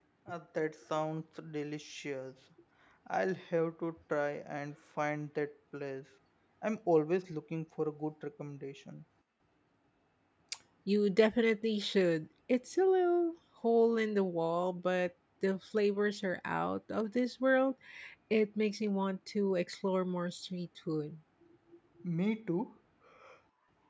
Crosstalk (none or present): none